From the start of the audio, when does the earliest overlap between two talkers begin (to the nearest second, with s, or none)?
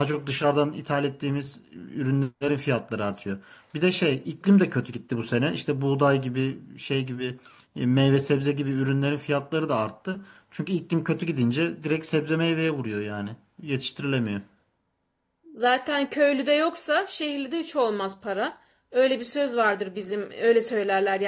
none